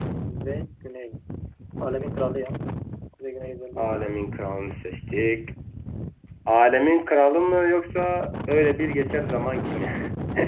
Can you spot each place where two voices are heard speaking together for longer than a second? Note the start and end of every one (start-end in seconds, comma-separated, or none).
none